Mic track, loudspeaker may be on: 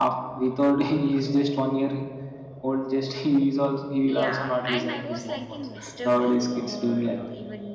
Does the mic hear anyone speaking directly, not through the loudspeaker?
Yes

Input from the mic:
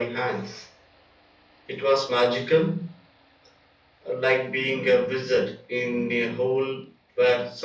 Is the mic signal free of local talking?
Yes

